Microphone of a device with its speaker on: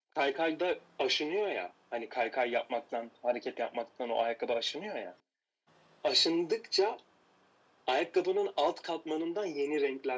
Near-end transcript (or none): none